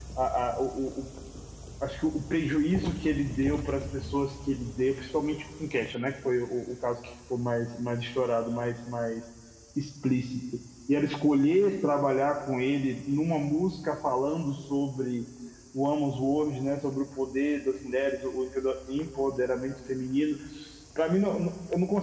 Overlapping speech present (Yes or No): No